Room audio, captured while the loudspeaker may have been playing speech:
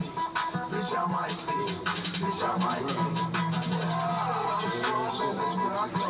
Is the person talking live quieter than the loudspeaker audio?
Yes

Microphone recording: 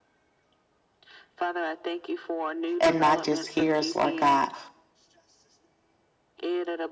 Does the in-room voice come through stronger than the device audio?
Yes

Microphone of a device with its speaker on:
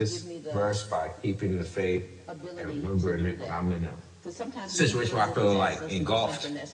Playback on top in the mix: No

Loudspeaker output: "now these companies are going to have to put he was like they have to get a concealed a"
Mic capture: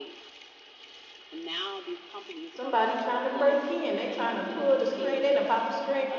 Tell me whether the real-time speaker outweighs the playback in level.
Yes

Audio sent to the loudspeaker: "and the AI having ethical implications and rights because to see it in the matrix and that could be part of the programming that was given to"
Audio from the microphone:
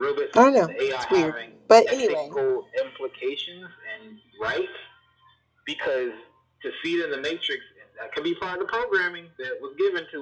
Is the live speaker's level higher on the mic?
Yes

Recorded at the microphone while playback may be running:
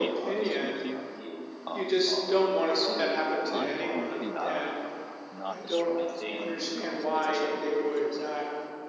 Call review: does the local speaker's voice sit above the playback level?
No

